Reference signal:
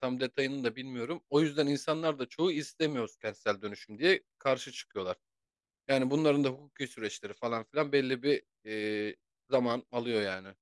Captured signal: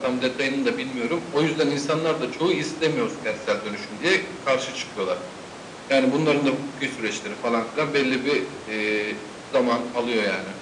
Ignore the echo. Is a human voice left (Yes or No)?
No